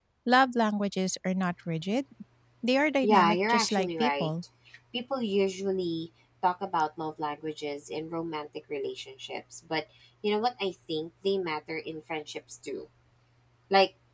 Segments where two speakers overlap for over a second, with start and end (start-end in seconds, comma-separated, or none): 3.0-4.3